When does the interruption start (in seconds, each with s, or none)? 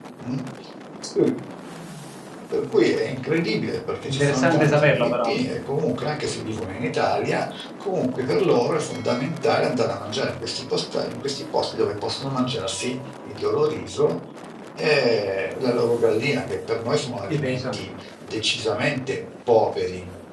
4.1 s